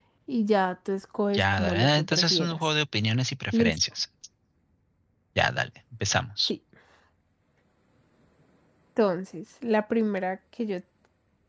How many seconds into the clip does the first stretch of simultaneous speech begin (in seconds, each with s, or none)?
1.3 s